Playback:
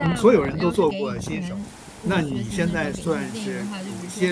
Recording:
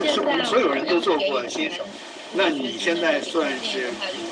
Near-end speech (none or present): none